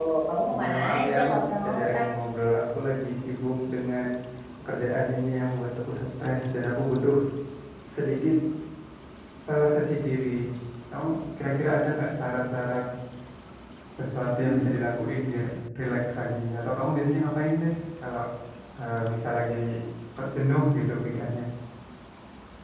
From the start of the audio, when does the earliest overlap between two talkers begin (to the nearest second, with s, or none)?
1 s